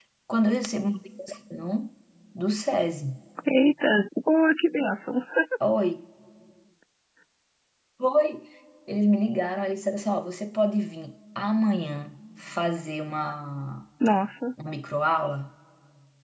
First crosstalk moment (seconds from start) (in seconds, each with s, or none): none